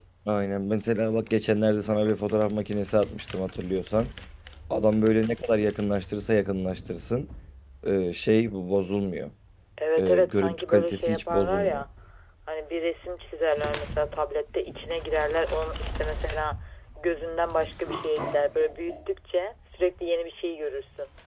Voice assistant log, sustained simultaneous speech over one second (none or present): present